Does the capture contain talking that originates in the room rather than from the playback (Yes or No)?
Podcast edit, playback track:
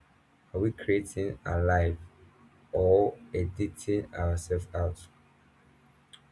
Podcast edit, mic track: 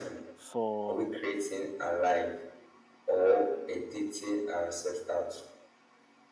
Yes